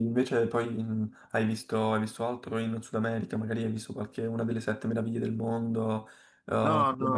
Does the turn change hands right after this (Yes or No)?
Yes